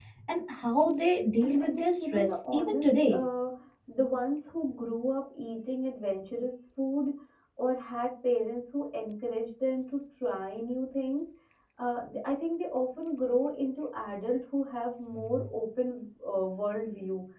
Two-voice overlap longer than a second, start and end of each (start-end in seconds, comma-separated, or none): 1.4-3.2